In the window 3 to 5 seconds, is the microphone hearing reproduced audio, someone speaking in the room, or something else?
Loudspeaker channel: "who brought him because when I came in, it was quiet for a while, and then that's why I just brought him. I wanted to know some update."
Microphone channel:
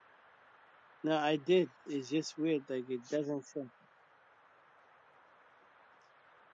user only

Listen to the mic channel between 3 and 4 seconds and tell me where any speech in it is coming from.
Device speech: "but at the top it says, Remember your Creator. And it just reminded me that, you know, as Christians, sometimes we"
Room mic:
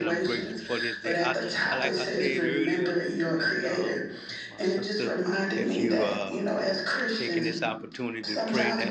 both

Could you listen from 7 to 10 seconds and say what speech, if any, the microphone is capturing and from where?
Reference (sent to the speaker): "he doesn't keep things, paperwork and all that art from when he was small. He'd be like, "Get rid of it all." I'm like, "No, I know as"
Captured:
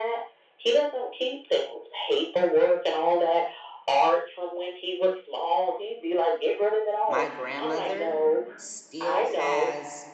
both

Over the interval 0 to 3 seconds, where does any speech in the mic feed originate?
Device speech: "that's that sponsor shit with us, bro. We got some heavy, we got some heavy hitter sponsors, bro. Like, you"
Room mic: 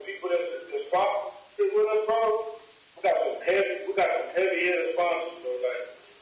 echo only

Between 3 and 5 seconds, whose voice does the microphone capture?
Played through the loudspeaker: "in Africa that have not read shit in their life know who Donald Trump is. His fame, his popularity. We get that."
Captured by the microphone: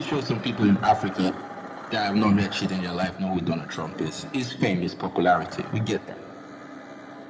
echo only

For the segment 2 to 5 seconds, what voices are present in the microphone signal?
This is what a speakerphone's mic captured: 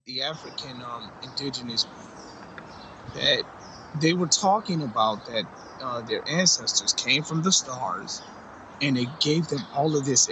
user only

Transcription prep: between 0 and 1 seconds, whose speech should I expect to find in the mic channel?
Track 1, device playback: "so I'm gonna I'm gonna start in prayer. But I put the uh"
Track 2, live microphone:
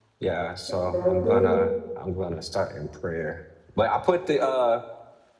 both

